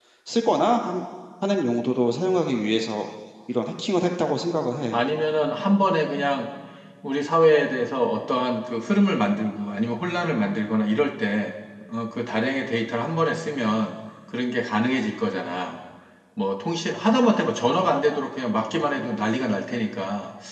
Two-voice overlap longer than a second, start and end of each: none

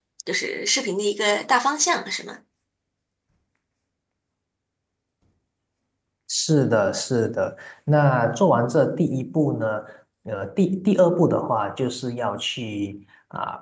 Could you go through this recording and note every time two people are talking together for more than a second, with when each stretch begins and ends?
none

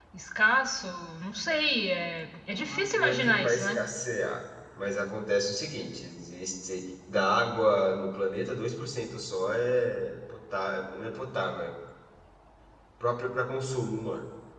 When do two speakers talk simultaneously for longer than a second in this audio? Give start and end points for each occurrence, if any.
2.5-3.8

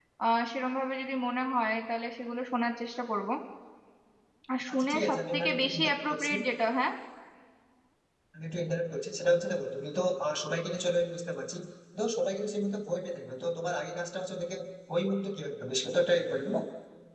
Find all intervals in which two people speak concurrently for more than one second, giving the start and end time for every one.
4.7-6.3

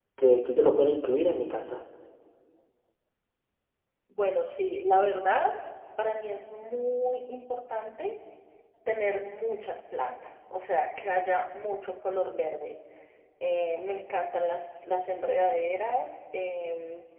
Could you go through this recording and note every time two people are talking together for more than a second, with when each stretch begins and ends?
none

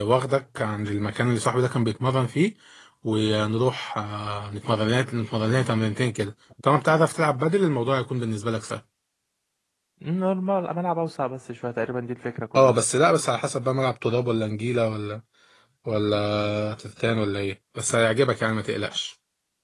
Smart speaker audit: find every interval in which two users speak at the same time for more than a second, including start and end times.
none

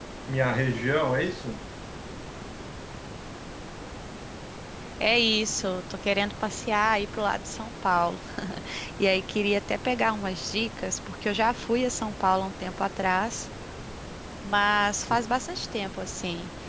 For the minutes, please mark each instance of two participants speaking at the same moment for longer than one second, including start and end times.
none

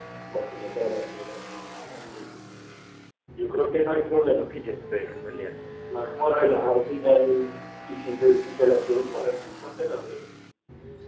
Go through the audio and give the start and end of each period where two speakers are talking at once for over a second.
none

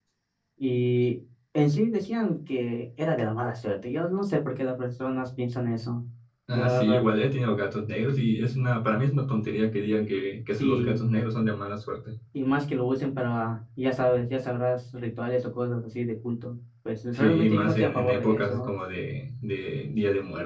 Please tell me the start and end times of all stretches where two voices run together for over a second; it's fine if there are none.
17.1-18.7

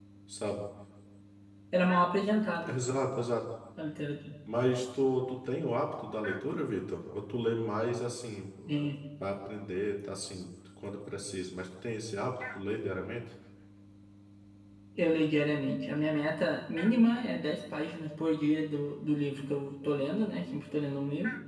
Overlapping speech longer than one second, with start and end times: none

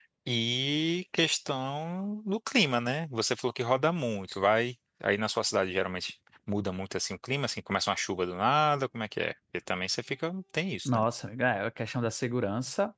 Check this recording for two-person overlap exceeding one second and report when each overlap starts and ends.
none

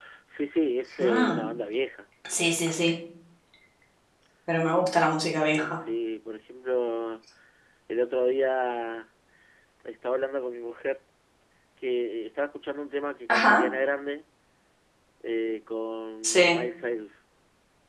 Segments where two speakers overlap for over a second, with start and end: none

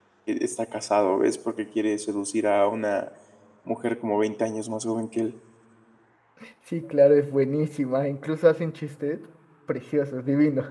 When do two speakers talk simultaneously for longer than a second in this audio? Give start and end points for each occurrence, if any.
none

